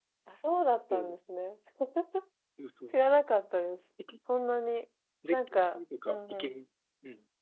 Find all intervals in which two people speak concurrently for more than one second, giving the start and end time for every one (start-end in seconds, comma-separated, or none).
5.3-6.6